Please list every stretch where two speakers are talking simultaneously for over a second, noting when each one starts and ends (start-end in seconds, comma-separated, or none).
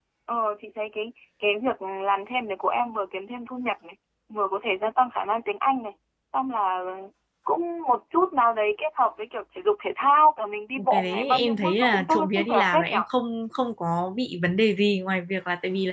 10.9-13.0